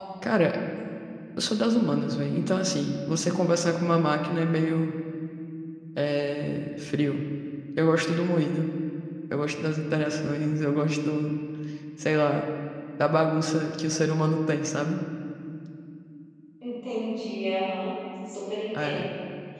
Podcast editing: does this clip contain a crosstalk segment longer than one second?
No

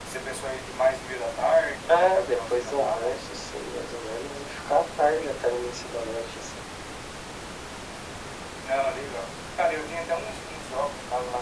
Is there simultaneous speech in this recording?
Yes, from 1.9 s

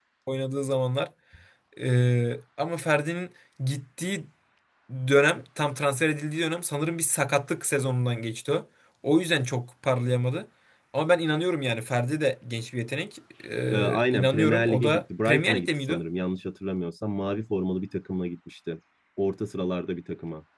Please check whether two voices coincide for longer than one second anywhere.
Yes, from 13.7 s

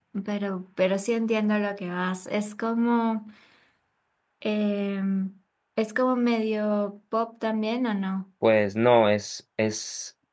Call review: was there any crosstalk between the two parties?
No

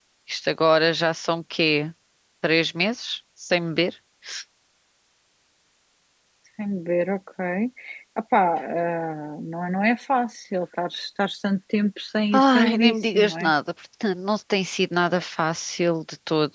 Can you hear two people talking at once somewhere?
Yes, from 12.3 s

